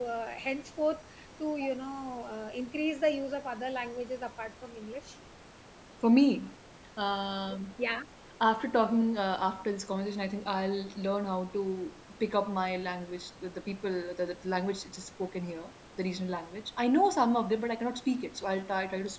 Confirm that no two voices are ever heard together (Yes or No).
Yes